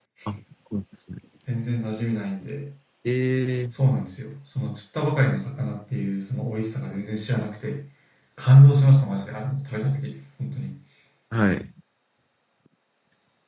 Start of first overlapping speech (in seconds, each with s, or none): none